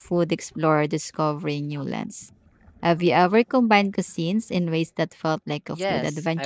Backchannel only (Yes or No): No